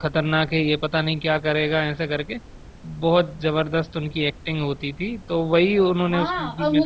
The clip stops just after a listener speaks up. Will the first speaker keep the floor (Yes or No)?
No